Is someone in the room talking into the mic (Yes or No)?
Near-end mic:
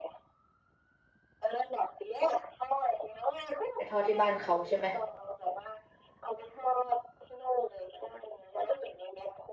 Yes